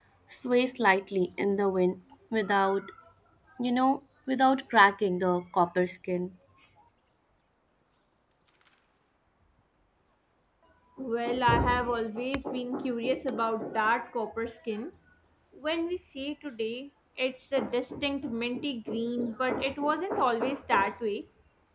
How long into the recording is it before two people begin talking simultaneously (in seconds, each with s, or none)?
none